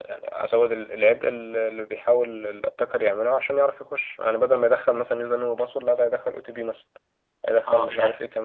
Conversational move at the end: taking over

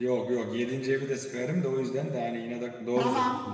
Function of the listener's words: taking over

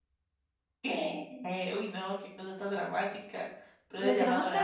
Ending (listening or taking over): taking over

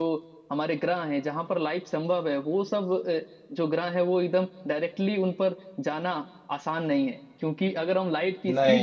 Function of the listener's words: listening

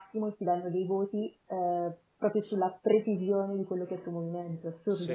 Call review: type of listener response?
taking over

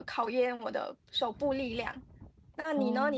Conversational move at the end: listening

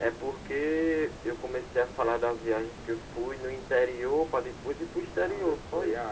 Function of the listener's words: taking over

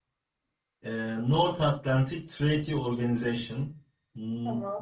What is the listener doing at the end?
listening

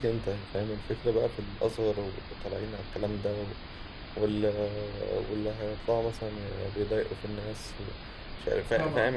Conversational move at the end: listening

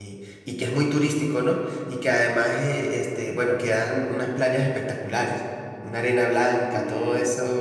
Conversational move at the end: listening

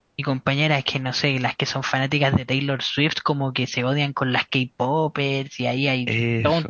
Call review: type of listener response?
listening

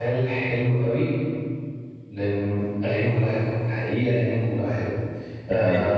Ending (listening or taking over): listening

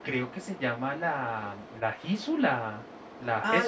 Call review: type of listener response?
taking over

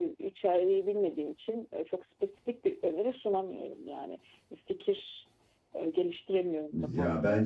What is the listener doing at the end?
taking over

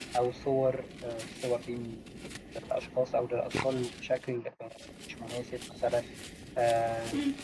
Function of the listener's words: taking over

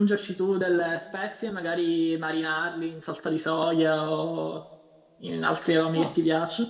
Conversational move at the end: listening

